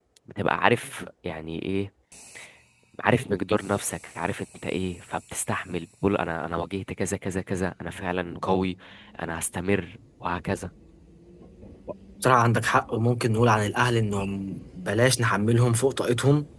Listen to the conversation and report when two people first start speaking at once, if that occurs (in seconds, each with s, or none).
none